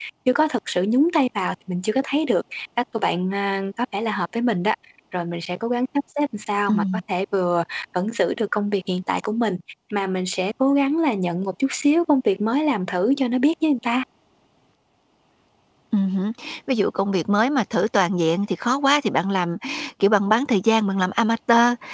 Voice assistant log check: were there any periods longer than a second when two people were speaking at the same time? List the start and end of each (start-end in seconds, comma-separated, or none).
none